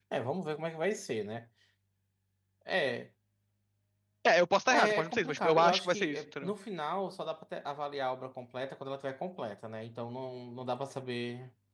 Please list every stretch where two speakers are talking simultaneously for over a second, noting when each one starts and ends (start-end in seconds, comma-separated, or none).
4.7-6.5